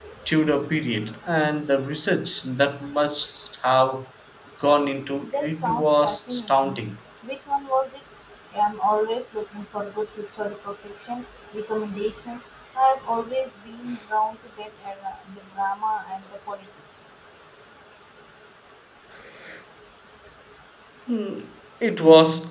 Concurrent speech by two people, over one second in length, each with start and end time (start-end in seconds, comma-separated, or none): 5.4-6.8